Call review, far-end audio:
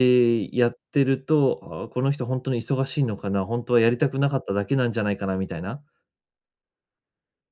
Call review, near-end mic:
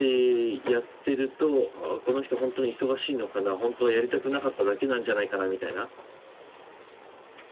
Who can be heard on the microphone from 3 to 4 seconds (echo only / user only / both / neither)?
echo only